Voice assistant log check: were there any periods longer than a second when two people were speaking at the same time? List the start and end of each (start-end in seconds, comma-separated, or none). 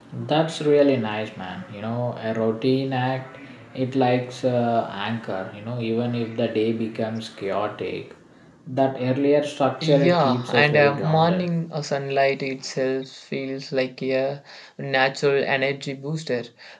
9.8-11.5